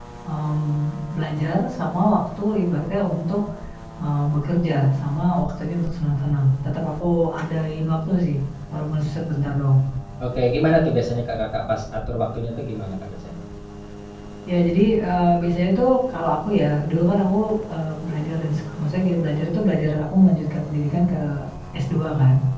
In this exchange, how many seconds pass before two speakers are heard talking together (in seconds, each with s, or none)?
none